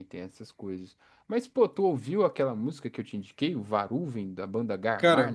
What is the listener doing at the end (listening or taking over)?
taking over